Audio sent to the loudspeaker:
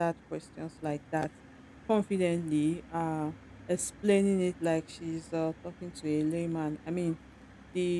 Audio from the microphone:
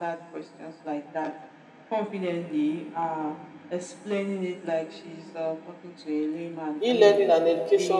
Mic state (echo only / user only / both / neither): both